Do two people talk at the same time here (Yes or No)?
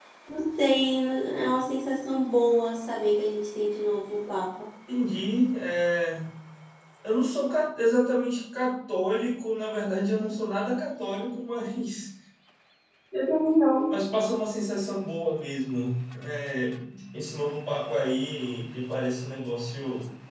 No